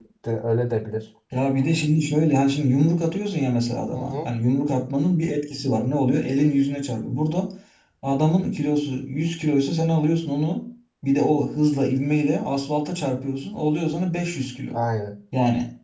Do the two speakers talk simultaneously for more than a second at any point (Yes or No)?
No